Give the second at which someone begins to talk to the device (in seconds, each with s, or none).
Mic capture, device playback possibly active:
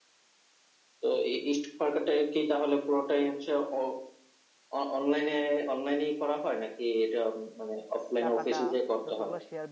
8.2 s